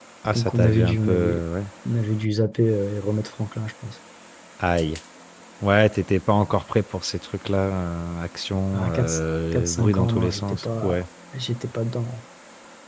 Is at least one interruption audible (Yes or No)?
Yes